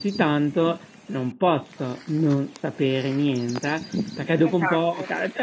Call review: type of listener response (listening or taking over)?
listening